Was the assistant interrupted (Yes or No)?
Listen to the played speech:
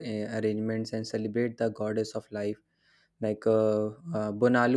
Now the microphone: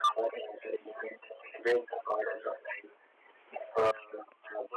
No